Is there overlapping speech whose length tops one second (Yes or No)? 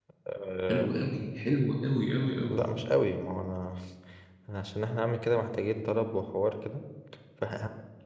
No